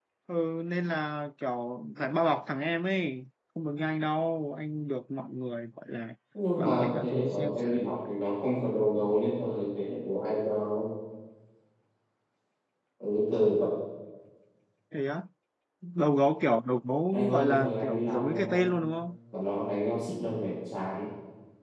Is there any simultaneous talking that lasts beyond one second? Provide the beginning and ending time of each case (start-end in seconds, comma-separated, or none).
6.6-8.1, 17.1-18.4